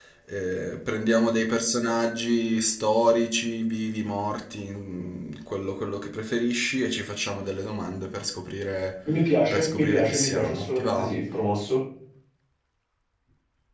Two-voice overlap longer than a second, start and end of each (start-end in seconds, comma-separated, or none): 9.5-11.1